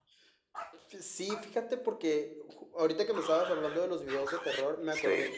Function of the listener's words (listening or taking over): listening